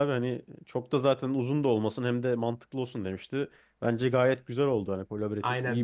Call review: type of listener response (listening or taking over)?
taking over